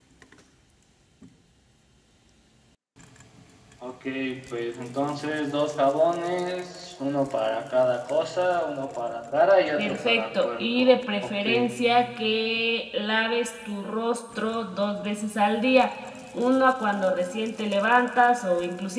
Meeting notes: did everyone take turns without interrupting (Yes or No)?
No